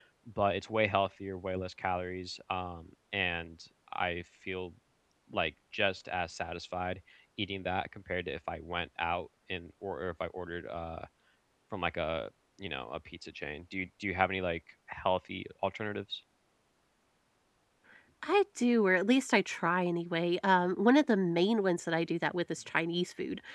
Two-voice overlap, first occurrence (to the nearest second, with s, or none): none